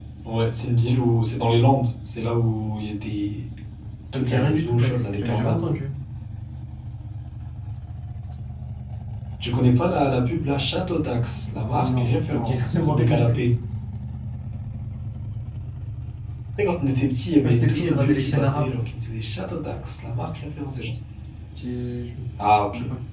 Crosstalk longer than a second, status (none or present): present